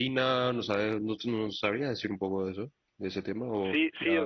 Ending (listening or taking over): taking over